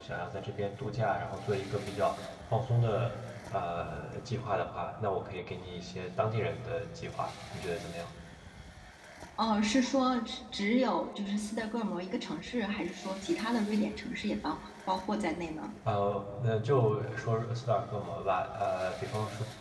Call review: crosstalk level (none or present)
none